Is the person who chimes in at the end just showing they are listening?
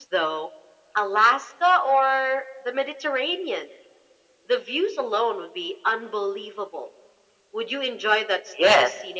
No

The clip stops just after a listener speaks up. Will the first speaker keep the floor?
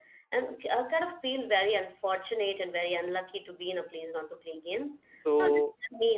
Yes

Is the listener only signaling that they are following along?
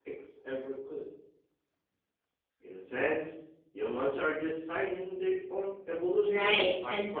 No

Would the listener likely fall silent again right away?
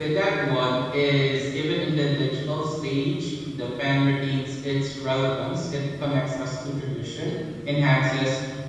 Yes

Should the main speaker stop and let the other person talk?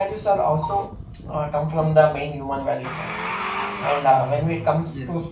No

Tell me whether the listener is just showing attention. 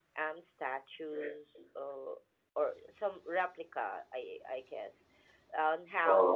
Yes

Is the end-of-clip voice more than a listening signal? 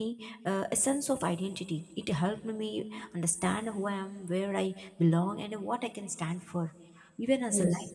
No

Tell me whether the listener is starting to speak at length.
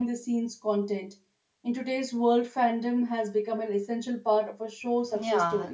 Yes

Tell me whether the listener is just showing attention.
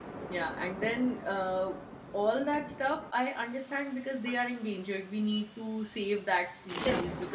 Yes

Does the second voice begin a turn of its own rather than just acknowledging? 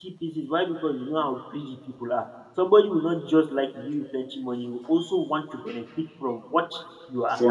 No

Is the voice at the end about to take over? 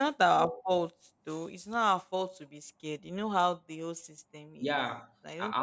Yes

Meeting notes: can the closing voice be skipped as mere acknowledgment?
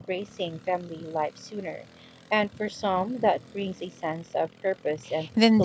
No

